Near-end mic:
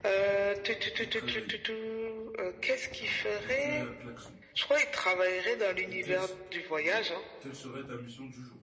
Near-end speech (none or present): present